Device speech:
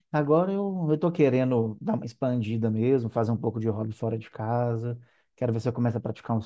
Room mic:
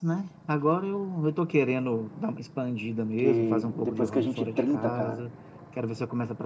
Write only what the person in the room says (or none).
Porque depois que a gente 30, cara,